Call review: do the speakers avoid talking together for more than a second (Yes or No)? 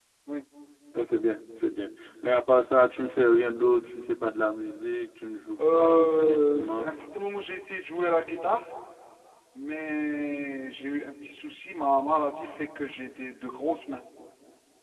No